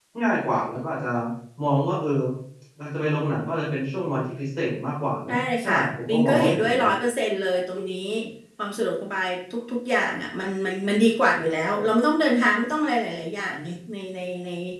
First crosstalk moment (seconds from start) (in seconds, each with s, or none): 5.3 s